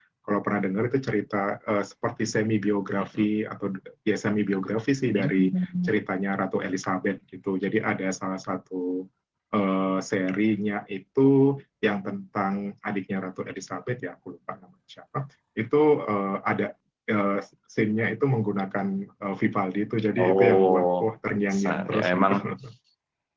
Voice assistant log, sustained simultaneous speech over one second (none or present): present